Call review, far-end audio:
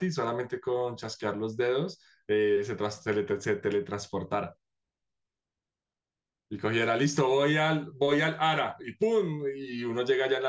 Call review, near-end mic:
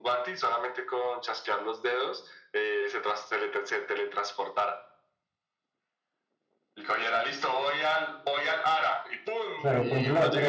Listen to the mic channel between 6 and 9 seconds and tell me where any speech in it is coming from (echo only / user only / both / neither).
echo only